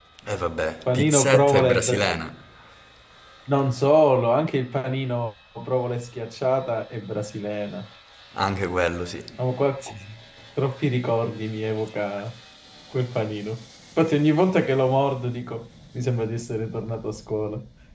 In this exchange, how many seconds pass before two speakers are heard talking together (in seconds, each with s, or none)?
0.9 s